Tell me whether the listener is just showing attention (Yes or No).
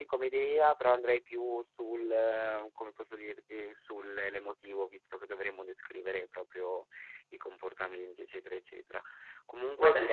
Yes